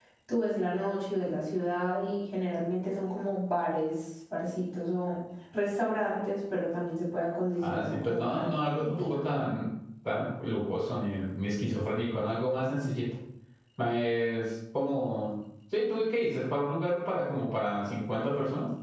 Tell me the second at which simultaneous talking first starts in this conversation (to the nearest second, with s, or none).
8 s